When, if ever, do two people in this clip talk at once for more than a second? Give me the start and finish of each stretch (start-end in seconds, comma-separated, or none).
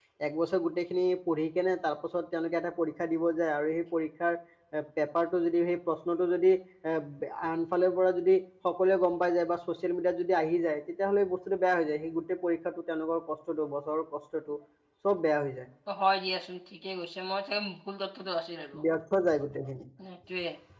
none